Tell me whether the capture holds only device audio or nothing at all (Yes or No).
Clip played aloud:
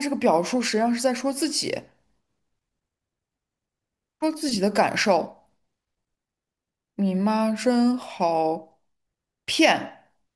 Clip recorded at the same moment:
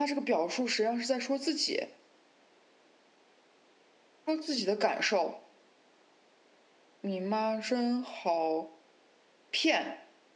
Yes